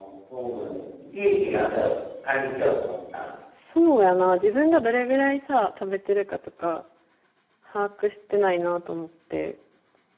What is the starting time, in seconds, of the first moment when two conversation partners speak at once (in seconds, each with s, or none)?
none